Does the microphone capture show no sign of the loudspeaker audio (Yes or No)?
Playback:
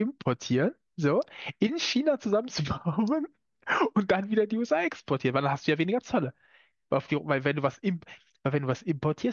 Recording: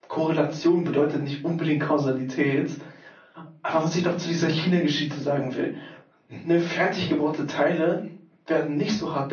Yes